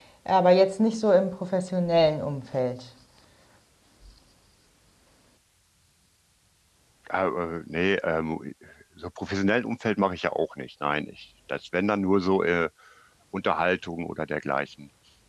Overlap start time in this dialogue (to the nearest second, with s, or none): none